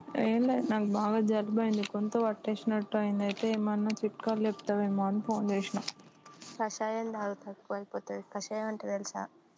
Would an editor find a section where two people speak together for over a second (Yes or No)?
No